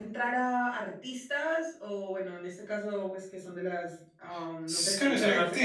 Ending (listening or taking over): taking over